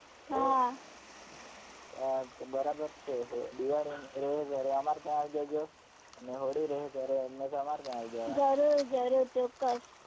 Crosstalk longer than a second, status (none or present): none